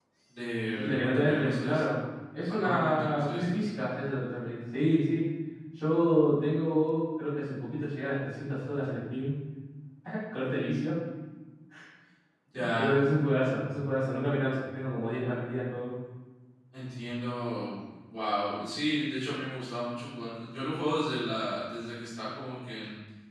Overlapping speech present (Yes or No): Yes